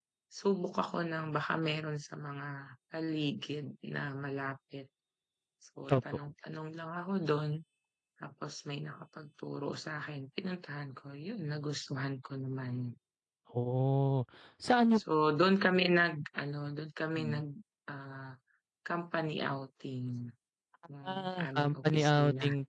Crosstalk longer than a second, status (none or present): present